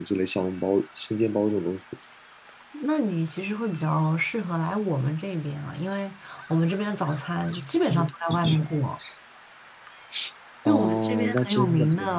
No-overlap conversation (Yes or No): No